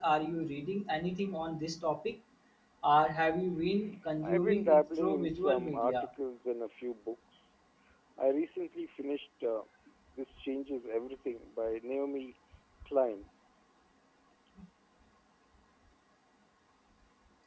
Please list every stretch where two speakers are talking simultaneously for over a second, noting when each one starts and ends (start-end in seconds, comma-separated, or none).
4.2-6.0